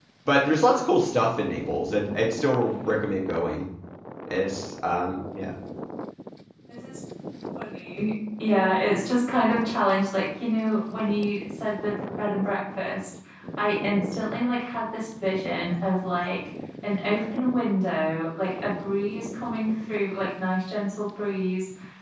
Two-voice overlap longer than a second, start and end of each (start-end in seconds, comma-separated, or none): none